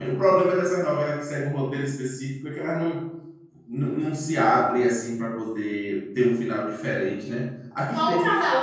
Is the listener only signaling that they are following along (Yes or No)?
No